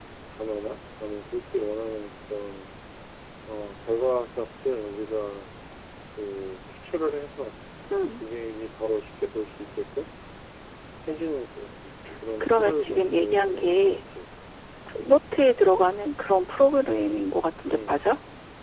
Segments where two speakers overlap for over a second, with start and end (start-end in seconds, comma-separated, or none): 12.4-13.9